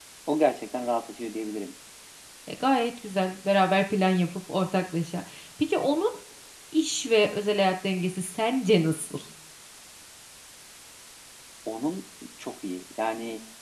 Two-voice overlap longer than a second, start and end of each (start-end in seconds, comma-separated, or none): none